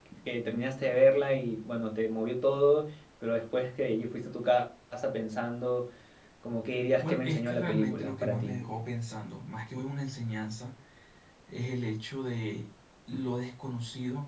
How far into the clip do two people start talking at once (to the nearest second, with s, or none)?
7 s